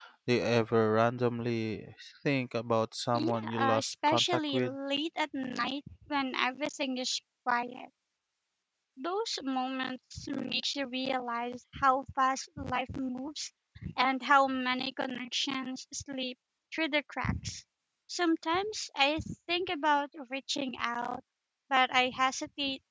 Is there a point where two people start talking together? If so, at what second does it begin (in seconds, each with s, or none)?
3.1 s